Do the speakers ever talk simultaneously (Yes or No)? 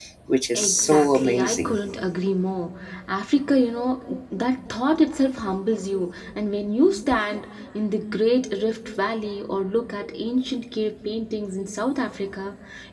Yes